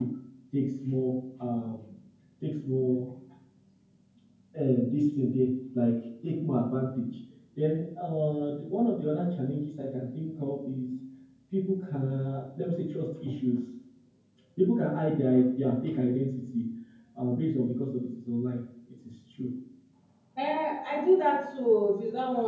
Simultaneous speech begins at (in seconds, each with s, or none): none